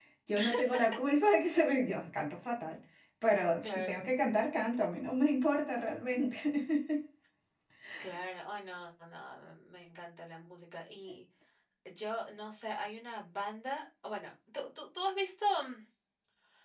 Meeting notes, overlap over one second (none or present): none